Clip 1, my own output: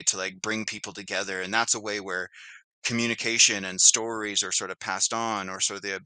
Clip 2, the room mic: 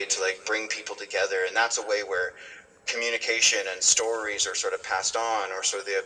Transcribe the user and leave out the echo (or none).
none